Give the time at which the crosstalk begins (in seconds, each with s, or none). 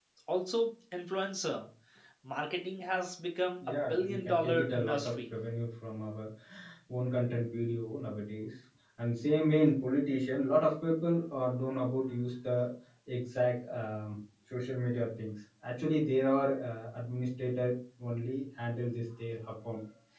3.6 s